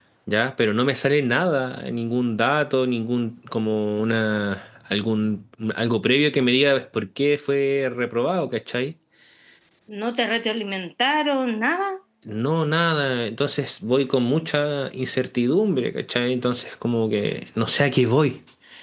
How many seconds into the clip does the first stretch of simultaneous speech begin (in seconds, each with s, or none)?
none